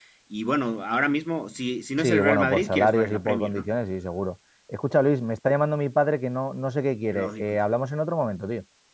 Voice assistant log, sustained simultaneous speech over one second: present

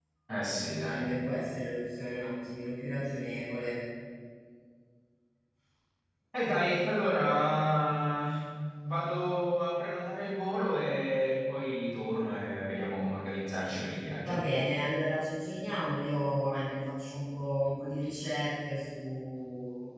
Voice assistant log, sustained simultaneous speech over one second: none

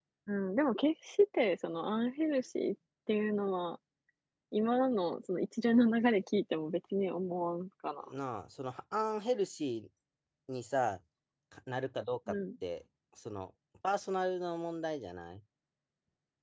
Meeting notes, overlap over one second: none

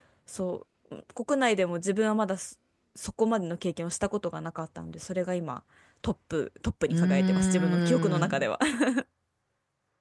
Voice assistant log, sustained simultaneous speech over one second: present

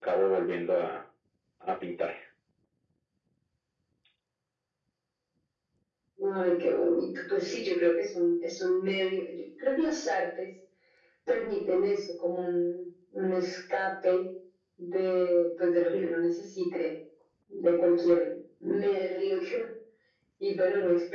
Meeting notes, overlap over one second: none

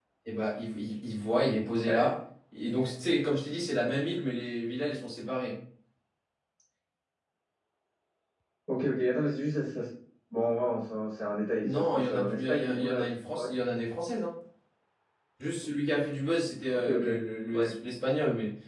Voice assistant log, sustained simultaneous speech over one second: present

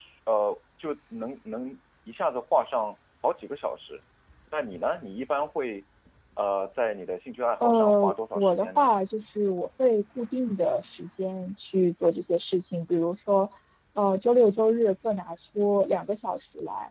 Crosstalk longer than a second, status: present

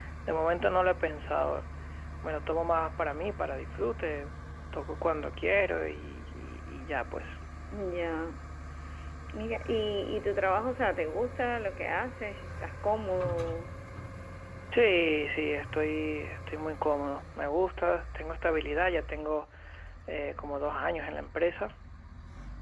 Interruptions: none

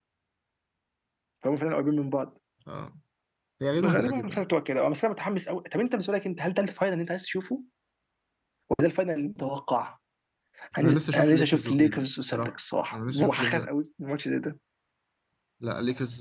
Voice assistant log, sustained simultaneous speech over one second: present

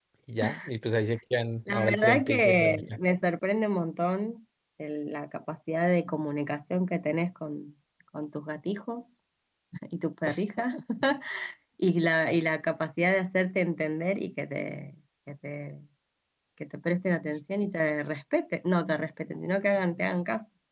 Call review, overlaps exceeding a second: present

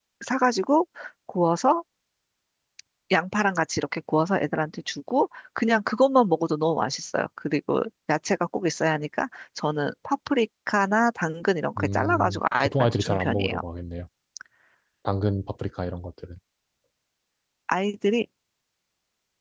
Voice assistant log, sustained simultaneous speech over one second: present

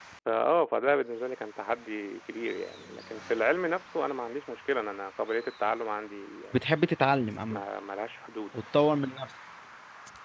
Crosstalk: none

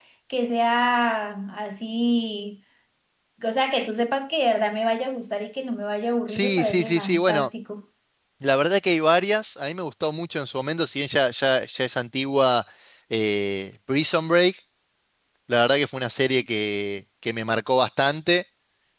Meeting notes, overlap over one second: present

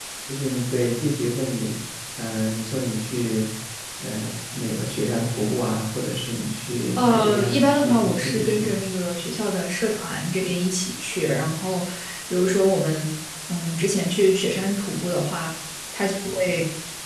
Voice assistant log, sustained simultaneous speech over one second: present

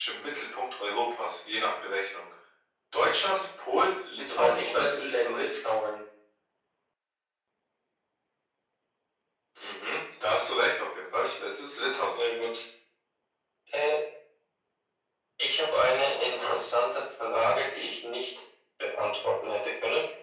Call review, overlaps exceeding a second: present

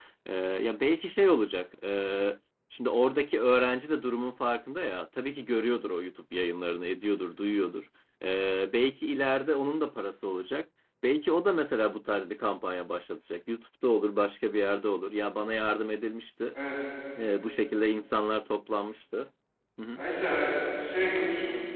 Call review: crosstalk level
none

